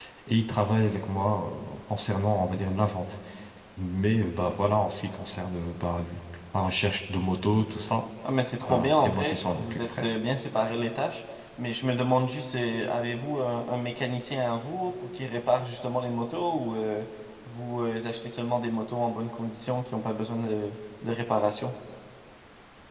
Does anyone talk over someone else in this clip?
Yes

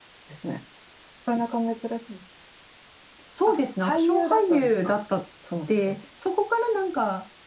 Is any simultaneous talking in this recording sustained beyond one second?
Yes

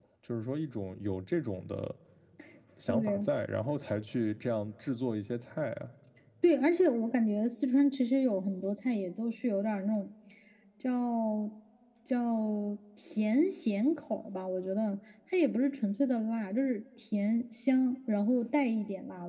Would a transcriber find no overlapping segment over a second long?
Yes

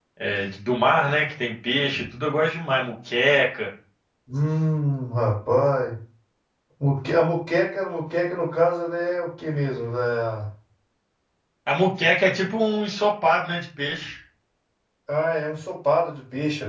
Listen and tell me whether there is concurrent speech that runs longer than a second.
No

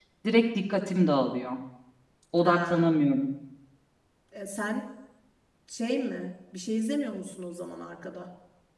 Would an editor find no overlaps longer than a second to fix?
Yes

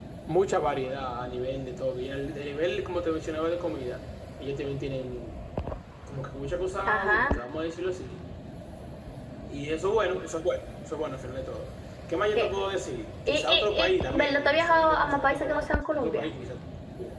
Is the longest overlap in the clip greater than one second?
Yes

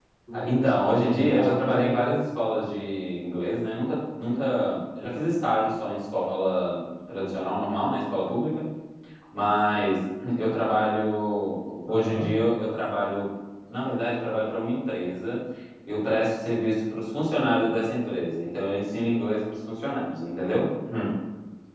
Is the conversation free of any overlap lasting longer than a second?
No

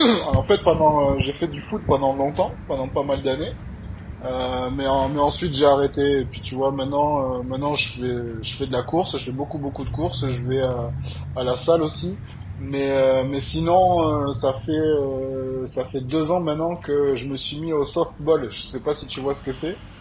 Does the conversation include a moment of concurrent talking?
No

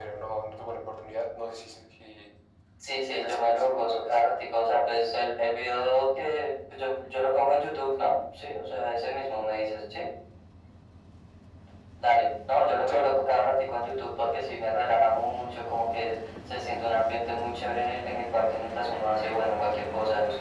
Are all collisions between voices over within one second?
No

